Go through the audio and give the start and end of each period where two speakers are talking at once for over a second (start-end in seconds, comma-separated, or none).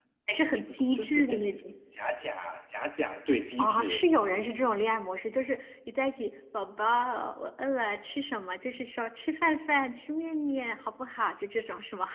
0.5-1.7